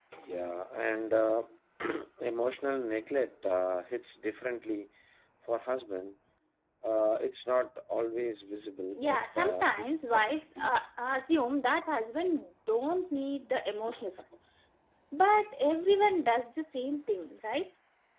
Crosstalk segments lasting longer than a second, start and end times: 8.9-10.7

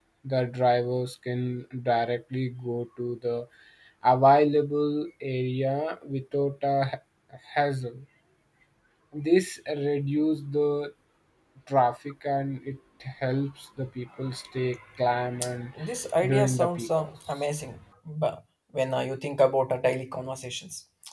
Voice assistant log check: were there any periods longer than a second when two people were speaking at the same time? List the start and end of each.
16.2-17.5

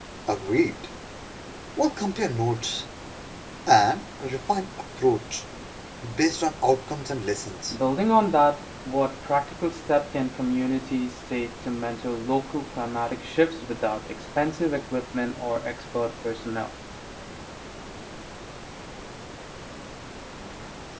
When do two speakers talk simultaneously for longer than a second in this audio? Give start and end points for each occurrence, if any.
none

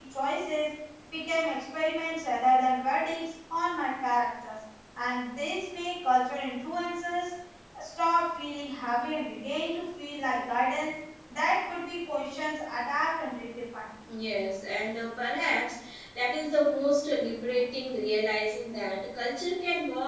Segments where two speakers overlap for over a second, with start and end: none

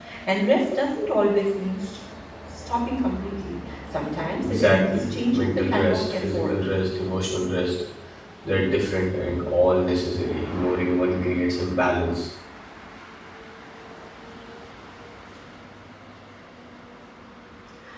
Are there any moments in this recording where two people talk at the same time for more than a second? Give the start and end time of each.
4.4-6.5

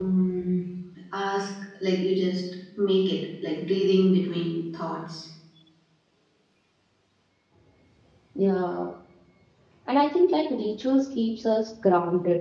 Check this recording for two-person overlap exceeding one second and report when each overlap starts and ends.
none

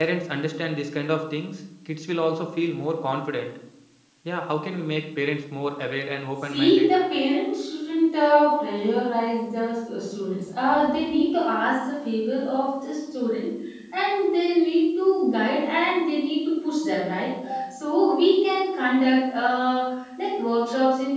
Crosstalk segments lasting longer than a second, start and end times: none

